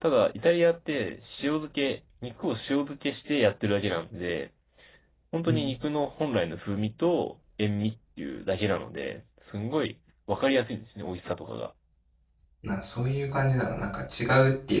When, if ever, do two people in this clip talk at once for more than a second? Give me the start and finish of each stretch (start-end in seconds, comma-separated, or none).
none